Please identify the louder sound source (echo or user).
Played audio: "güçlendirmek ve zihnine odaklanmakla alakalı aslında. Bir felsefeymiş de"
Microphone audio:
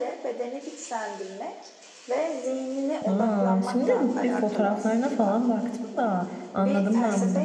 user